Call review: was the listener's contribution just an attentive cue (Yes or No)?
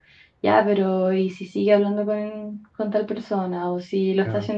Yes